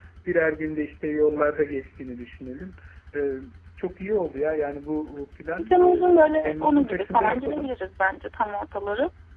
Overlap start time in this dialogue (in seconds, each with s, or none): 5.5 s